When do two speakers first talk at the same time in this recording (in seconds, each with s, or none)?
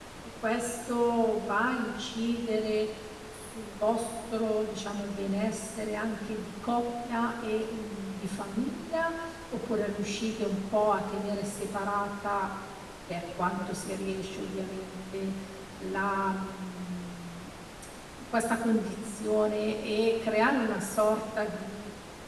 none